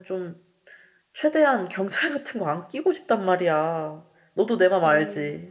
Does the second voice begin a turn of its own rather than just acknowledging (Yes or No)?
Yes